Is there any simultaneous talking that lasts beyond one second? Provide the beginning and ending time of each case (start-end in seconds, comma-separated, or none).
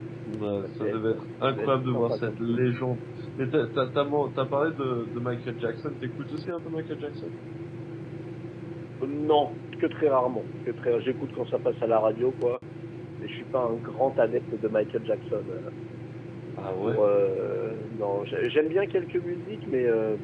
0.6-2.6